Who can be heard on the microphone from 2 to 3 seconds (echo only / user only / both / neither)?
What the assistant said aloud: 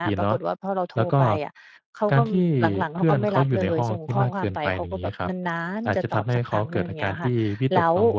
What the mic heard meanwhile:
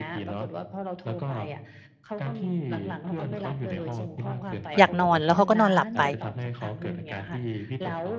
echo only